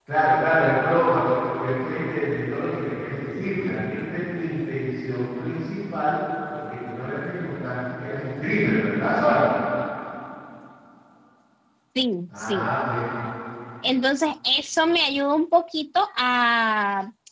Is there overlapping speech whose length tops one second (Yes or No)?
No